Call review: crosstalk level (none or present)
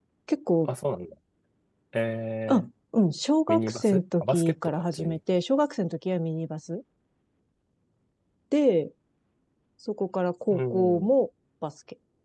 present